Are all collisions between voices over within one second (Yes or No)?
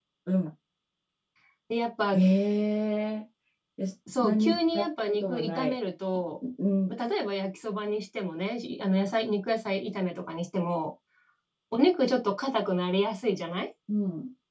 No